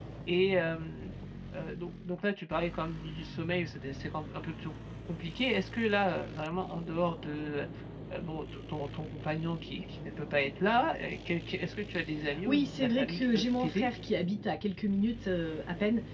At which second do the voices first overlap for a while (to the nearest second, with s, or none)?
12 s